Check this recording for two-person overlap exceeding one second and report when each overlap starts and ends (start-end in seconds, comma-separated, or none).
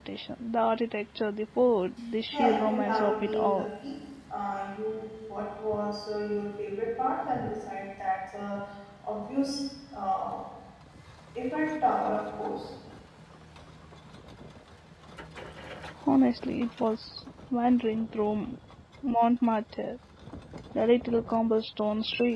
2.3-3.7